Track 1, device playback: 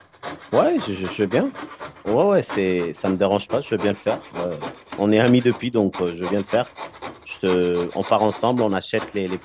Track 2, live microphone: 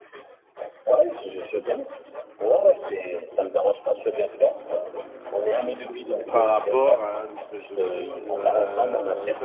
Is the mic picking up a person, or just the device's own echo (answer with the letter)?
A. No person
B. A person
B